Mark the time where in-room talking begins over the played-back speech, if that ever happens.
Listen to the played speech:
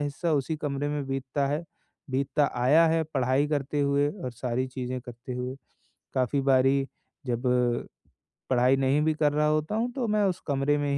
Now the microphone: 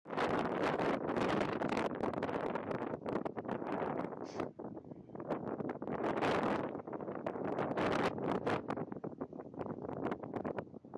none

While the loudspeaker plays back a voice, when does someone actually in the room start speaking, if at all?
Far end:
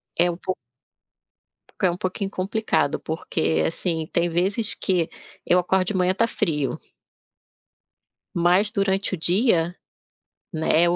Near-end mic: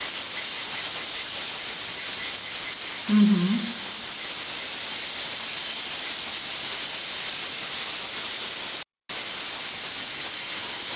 3.1 s

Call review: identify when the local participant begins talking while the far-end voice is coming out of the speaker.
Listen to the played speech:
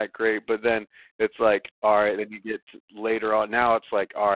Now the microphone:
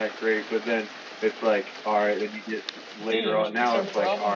3.1 s

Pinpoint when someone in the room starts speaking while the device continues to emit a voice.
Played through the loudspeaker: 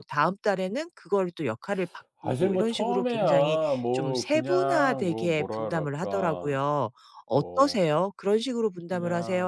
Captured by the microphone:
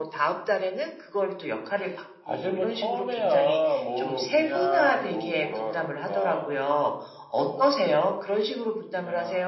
none

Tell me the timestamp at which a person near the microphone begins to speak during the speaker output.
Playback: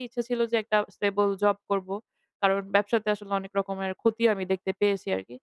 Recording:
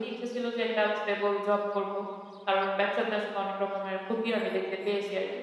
none

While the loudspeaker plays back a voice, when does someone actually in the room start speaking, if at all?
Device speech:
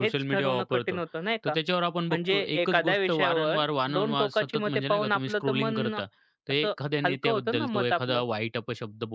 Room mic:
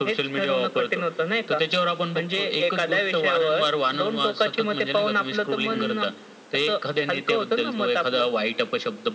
5.7 s

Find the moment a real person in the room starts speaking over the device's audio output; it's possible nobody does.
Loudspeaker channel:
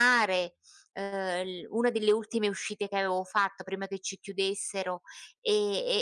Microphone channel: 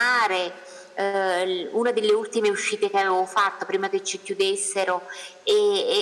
none

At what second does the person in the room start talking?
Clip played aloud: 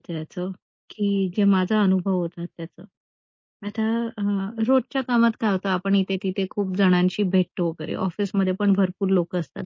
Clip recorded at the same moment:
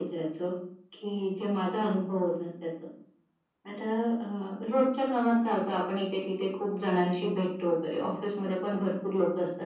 none

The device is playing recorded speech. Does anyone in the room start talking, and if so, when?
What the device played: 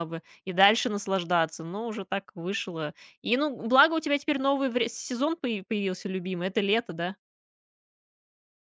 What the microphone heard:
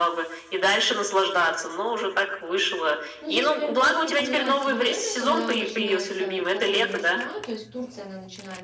3.2 s

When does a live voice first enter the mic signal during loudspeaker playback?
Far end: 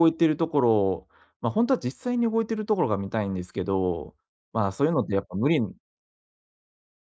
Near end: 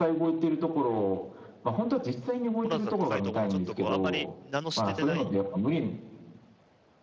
2.6 s

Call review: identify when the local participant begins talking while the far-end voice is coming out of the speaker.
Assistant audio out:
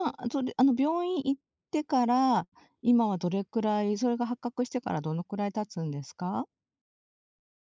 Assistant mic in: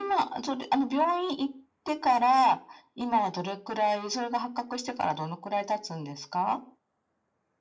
none

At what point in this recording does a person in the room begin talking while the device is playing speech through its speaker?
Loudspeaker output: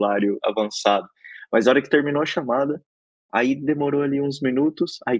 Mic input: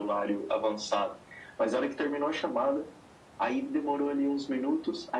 none

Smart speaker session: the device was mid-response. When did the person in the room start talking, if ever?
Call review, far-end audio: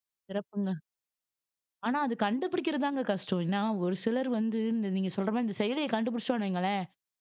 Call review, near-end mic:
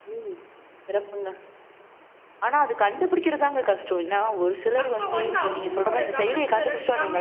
4.8 s

